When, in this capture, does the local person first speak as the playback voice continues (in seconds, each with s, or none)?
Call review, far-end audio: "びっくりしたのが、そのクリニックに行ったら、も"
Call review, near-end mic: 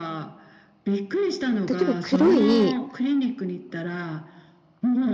1.6 s